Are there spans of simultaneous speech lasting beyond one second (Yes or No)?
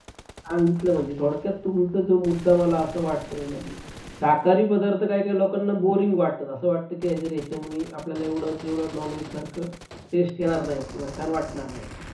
No